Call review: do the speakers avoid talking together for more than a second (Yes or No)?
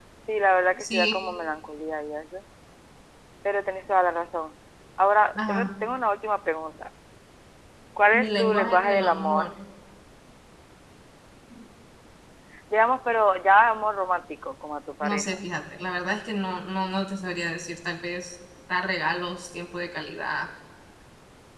No